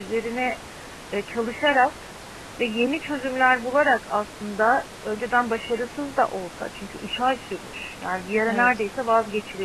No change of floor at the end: Yes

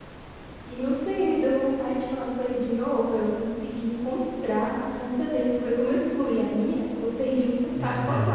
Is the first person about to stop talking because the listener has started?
No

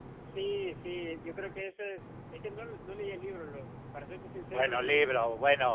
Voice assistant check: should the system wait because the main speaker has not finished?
No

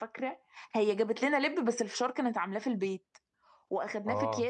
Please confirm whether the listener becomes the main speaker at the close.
No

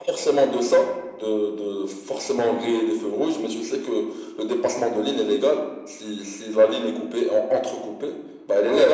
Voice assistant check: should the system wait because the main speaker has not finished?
No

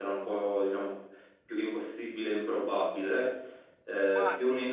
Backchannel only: Yes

